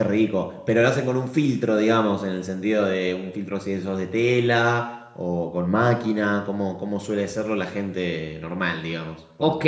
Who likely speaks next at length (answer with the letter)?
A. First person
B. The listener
B